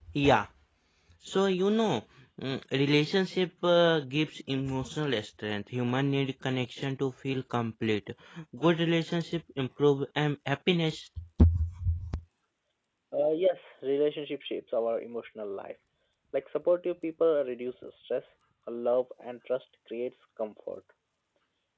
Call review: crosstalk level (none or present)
none